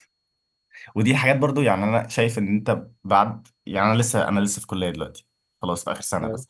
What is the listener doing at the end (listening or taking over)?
listening